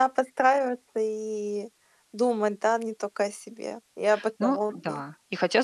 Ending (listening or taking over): taking over